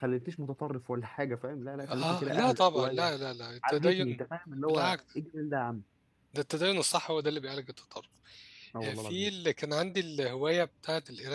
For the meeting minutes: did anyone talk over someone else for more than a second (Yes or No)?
Yes